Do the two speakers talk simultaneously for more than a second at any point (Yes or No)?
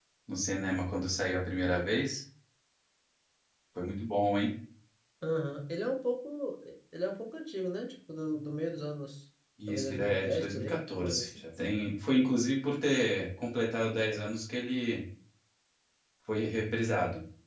Yes